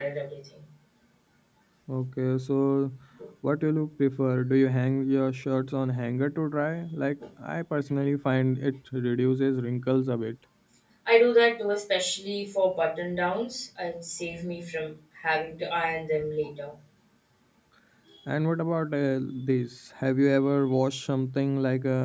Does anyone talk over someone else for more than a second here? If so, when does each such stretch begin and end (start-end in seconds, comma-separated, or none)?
none